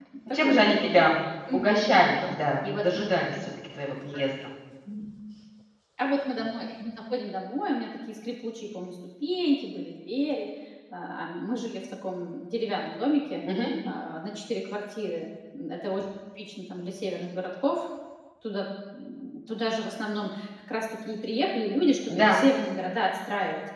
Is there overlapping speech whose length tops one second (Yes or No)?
No